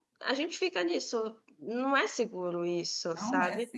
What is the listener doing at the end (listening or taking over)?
taking over